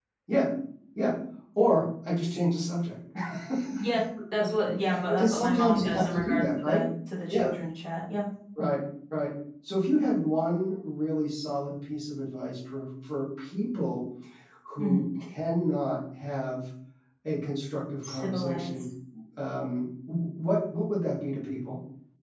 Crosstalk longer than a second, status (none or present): present